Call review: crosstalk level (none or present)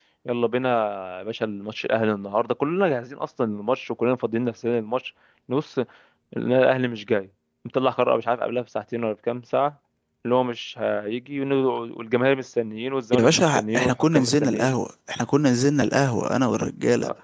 present